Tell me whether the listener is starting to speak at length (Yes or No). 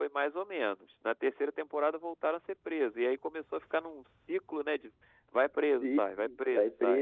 Yes